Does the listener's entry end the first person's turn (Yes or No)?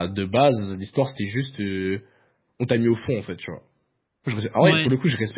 No